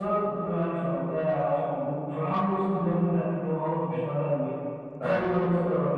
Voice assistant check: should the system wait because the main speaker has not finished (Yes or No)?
Yes